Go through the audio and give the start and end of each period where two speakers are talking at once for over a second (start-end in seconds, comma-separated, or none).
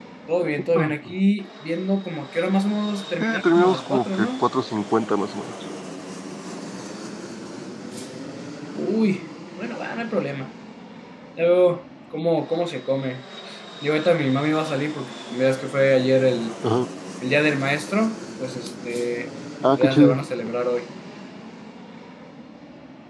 3.2-4.4